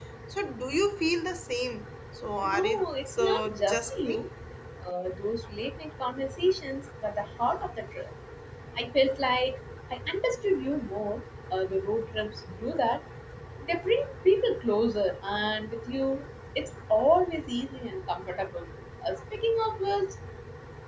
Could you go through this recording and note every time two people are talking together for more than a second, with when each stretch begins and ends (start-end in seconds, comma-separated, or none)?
2.4-4.2